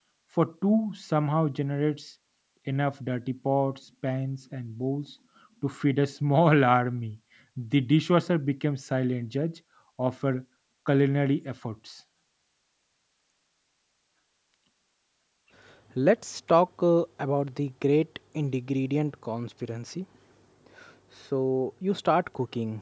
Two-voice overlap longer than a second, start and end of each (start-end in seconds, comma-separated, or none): none